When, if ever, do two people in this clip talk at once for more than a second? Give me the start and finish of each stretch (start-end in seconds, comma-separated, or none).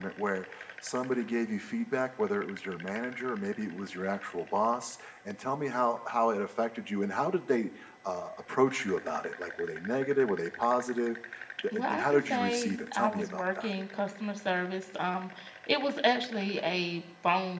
11.7-13.7